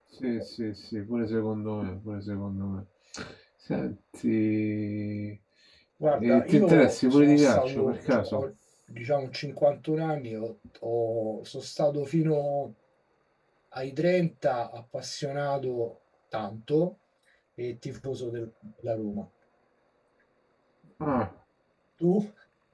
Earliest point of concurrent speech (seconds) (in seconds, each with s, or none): 6.1 s